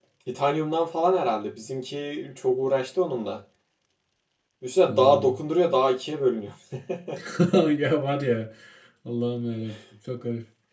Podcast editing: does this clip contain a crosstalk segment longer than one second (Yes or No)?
No